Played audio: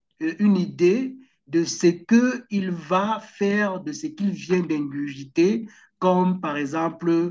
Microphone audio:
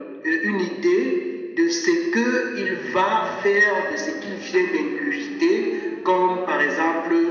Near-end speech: none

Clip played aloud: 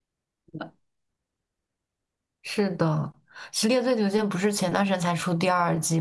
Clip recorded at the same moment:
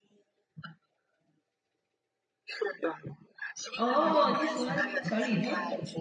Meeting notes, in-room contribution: present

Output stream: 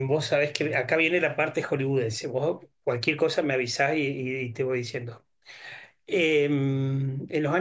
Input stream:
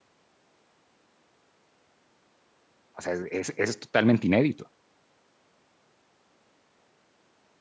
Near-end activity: present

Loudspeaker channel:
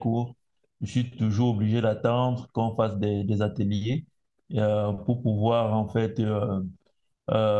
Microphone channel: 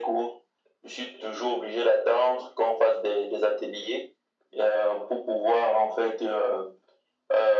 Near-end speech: none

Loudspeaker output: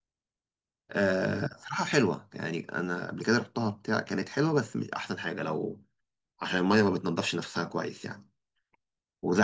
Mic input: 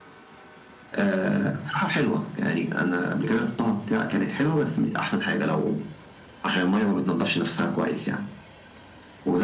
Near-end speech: none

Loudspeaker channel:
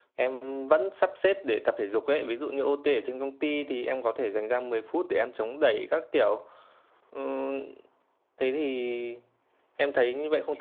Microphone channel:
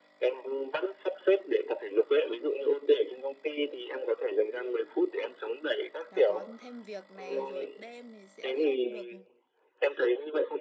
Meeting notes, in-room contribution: present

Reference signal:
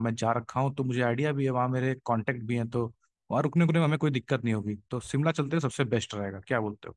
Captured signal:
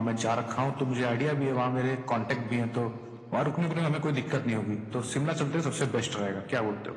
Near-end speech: none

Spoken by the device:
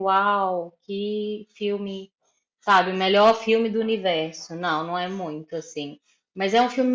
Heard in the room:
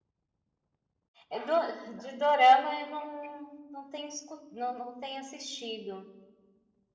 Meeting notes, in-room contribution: present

